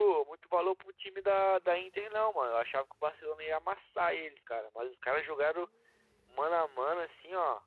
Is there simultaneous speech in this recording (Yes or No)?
No